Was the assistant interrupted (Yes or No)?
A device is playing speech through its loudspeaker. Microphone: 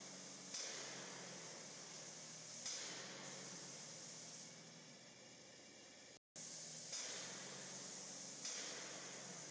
No